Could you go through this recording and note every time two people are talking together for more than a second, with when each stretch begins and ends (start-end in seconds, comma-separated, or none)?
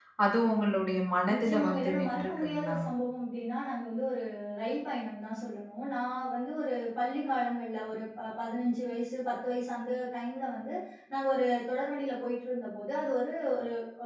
1.3-2.8